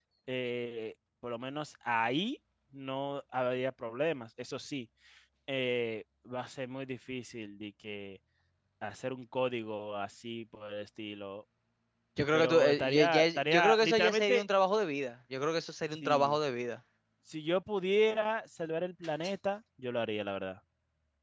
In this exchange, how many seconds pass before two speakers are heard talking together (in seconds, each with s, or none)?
12.3 s